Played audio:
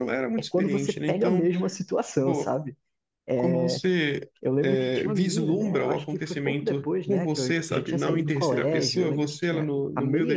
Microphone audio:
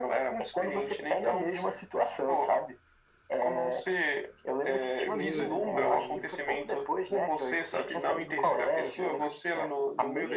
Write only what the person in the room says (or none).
Putz, mano.